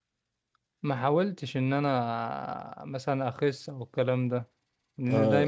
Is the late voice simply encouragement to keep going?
Yes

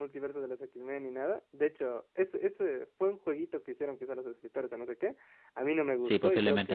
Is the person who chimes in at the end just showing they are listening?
Yes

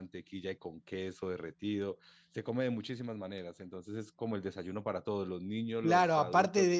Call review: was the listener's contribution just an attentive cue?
No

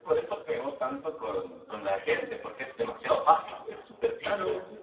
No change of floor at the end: No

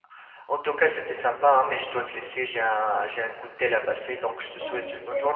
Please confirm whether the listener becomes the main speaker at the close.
Yes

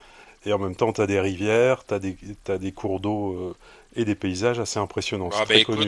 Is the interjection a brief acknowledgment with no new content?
No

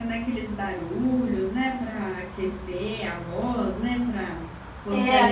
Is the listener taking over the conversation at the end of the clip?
Yes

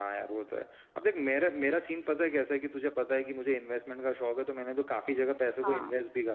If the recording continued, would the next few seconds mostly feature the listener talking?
No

